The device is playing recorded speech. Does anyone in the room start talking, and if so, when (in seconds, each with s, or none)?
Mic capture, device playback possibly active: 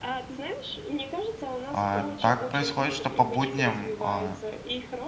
1.7 s